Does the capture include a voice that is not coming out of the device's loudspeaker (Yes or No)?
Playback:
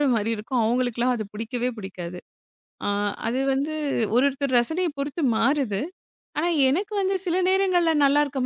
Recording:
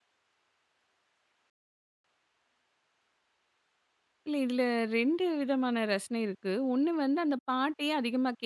Yes